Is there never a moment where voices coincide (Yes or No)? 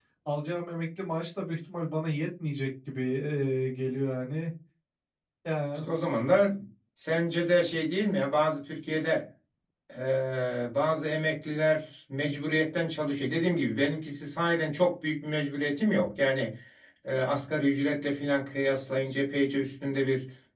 Yes